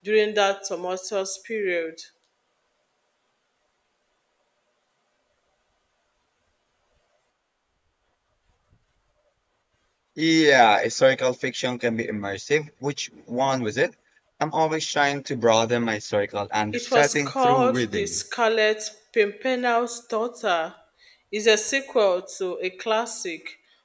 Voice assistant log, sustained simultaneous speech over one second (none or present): present